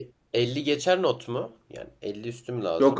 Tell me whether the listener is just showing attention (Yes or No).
No